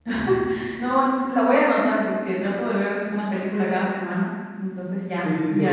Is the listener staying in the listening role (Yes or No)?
No